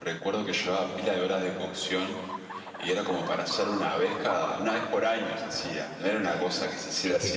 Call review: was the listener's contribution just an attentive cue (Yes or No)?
No